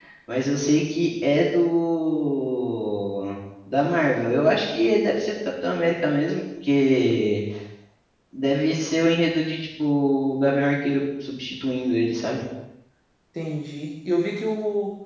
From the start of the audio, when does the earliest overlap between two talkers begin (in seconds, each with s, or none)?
none